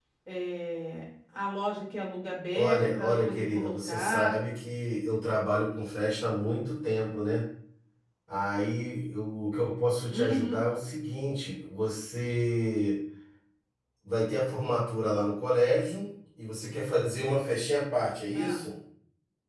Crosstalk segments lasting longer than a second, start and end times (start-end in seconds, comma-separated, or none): 2.5-4.4